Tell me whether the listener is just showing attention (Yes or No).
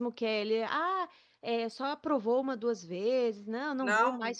No